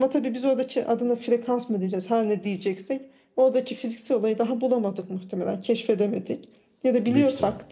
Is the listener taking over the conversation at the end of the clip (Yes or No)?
No